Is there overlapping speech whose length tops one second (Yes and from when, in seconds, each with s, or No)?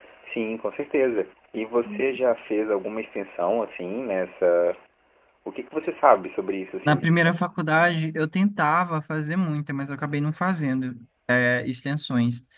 No